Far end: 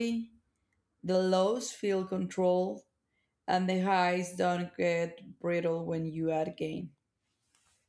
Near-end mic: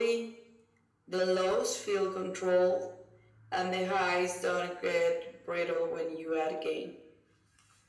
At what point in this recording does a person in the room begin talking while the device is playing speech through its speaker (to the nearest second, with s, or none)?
none